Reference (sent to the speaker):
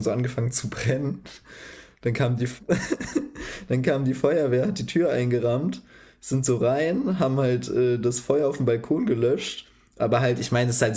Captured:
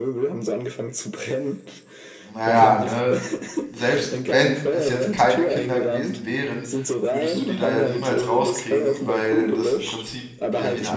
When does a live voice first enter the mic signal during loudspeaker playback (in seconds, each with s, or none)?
2.3 s